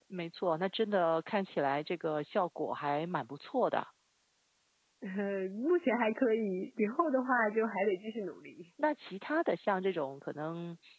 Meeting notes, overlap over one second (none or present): none